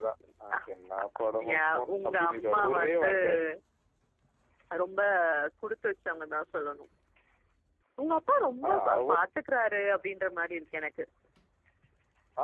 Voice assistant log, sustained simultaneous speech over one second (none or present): present